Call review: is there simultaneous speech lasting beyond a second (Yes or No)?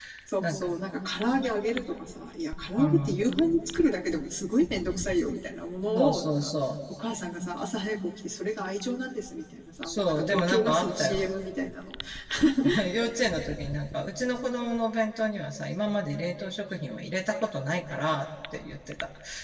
Yes